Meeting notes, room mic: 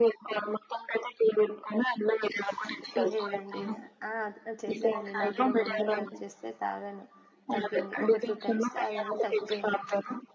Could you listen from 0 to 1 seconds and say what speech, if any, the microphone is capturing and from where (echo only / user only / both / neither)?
echo only